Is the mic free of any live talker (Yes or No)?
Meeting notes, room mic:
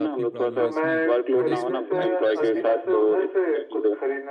No